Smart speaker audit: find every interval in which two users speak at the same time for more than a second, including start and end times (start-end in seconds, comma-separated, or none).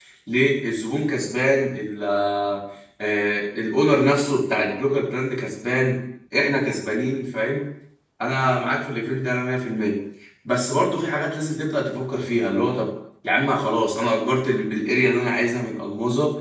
none